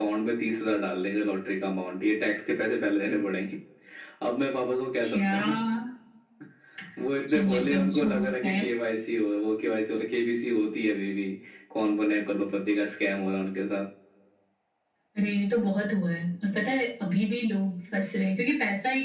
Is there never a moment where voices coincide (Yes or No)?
No